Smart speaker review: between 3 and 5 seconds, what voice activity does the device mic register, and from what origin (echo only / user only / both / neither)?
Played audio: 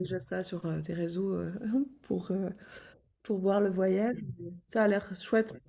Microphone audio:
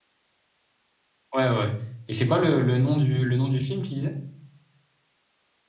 user only